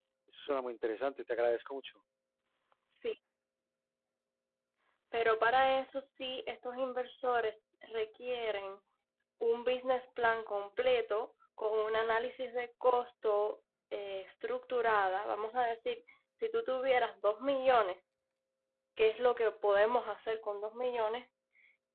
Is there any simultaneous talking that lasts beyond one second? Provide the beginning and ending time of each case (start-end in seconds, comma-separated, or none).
none